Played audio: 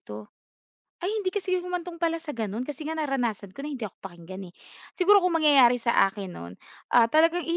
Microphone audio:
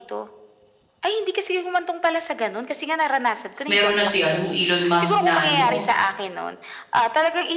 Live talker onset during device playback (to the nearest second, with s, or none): 4 s